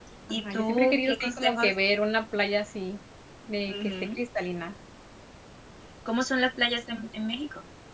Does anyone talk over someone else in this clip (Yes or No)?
Yes